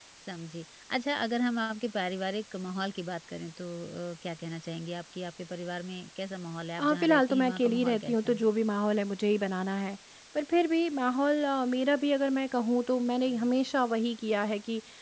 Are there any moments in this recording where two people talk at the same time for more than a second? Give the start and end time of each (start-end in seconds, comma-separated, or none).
6.8-8.5